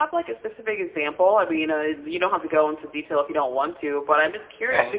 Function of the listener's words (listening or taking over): listening